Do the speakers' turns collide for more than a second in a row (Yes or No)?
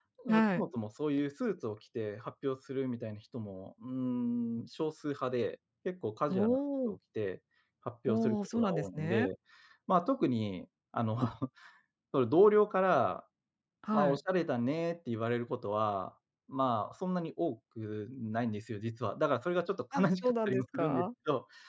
Yes